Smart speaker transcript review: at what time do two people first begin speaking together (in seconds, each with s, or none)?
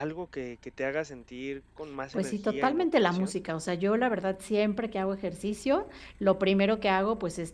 2.1 s